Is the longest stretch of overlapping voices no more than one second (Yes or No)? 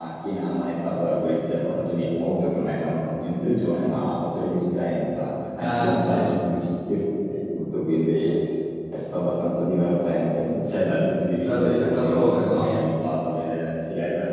No